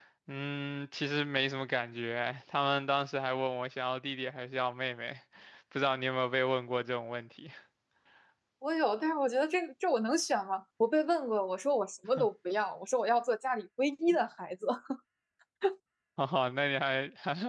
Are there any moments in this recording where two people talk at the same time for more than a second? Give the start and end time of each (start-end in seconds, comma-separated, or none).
none